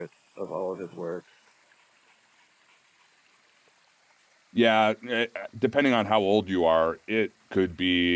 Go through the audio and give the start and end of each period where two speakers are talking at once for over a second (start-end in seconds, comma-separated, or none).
none